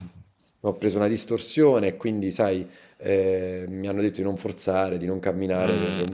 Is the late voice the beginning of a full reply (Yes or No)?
No